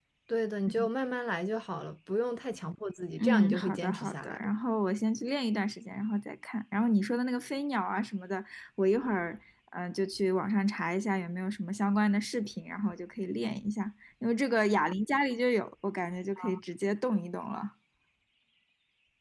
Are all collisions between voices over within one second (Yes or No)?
No